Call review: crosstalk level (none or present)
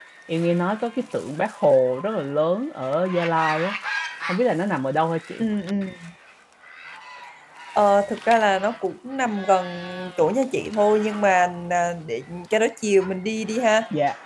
none